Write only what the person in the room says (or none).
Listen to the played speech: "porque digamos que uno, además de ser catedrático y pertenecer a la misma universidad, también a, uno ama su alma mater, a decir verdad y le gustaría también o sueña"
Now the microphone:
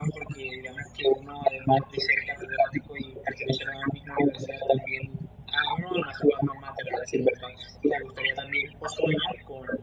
none